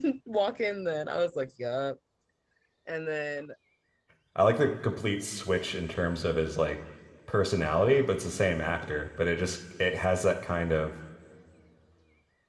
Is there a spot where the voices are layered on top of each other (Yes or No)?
No